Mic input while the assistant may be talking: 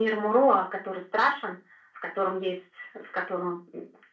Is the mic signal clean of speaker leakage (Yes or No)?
No